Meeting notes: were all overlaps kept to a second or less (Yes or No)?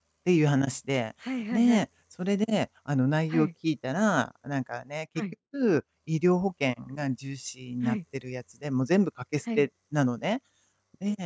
Yes